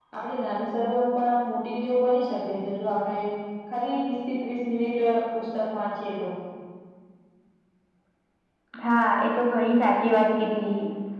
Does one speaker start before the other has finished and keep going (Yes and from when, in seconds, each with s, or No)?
No